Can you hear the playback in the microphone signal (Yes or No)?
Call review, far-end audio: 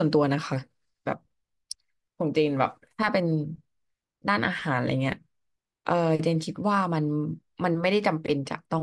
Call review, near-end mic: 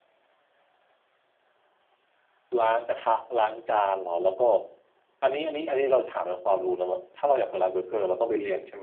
No